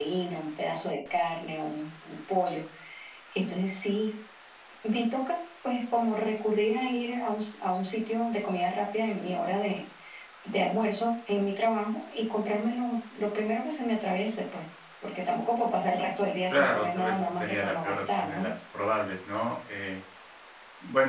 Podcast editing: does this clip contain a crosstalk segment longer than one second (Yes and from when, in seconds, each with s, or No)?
Yes, from 16.5 s